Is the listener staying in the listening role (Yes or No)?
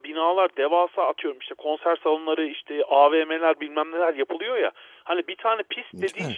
Yes